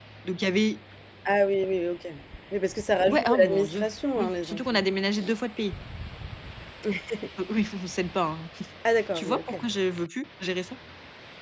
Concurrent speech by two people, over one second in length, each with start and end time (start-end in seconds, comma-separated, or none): 3.1-4.8